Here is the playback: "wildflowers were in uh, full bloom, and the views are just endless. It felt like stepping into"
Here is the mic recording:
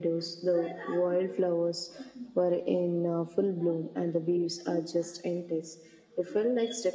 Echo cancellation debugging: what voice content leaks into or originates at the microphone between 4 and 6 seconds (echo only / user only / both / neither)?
echo only